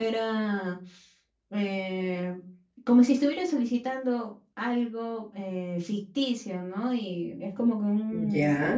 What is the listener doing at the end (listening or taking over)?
listening